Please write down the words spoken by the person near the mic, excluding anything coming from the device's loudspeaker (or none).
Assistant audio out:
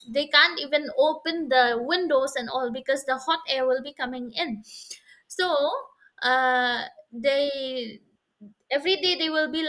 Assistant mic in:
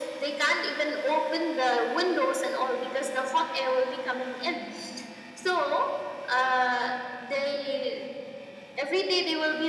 none